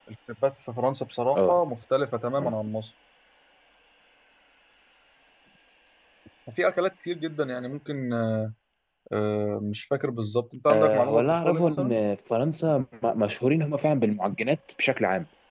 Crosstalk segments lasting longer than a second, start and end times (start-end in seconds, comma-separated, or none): 10.7-12.0